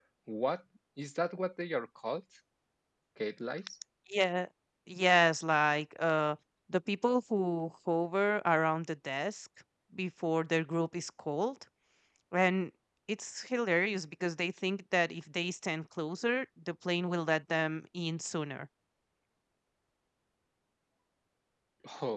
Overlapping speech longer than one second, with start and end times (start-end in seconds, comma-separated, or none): none